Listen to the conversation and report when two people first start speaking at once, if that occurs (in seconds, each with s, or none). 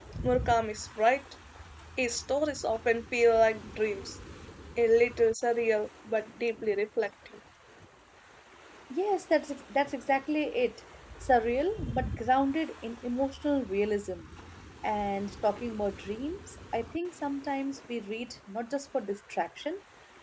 none